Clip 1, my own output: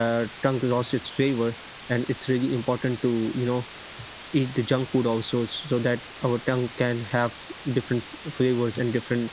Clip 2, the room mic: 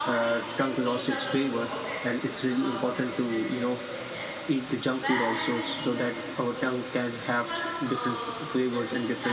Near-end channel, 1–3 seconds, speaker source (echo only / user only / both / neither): both